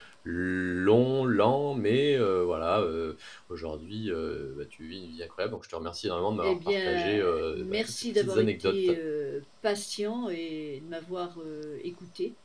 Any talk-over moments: Yes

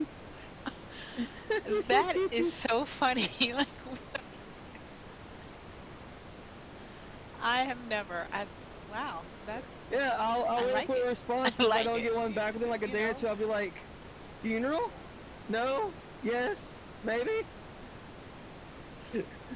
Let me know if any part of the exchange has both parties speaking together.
Yes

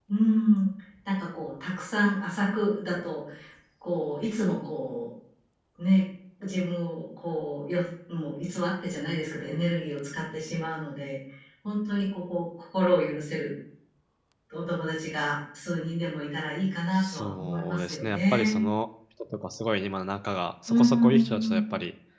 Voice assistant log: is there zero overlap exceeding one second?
No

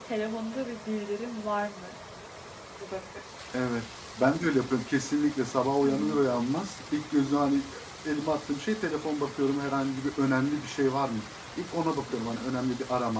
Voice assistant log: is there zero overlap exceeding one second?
Yes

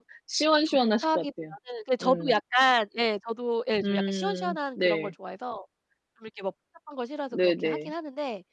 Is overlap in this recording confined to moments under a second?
No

